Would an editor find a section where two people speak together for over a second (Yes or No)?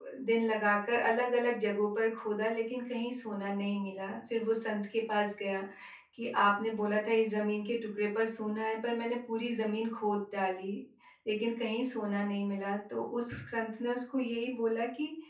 No